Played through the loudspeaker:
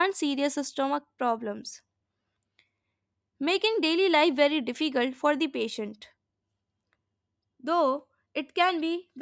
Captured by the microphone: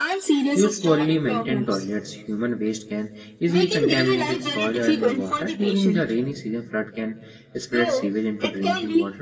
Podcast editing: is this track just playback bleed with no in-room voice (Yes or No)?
No